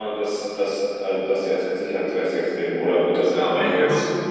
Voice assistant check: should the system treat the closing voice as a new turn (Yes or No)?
Yes